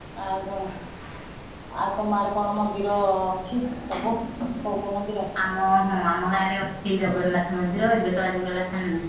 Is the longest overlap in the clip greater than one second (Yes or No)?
No